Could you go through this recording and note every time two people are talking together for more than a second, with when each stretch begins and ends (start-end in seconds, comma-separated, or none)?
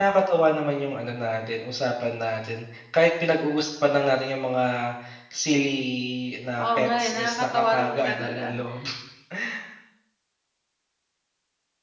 6.6-8.4